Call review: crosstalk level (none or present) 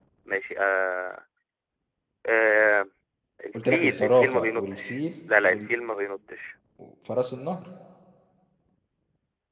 present